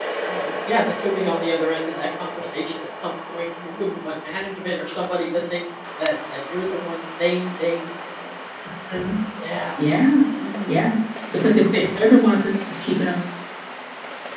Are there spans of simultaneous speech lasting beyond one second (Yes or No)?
No